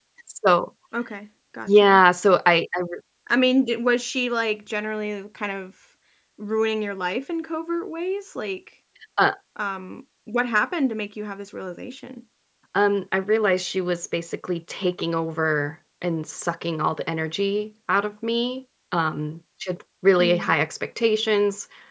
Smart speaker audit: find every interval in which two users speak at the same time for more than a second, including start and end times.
none

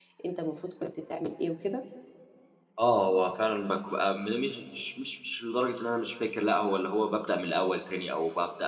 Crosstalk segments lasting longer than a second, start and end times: none

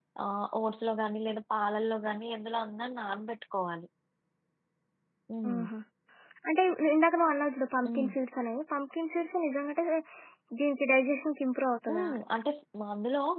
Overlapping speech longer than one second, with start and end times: none

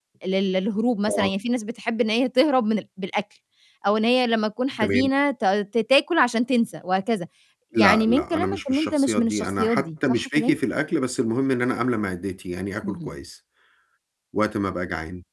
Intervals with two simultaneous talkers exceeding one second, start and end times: 7.8-10.6

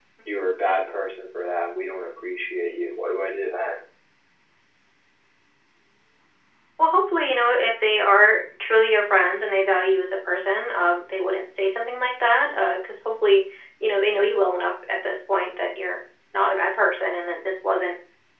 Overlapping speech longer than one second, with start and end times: none

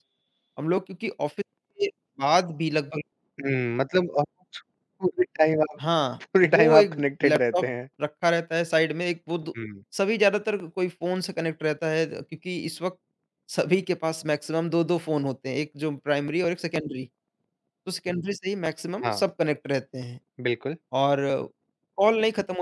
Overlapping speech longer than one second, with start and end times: 6.4-7.7

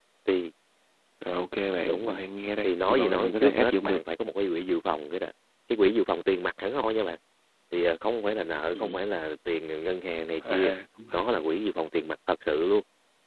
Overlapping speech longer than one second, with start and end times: 2.6-4.0

